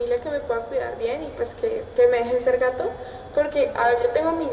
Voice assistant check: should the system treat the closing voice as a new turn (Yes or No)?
No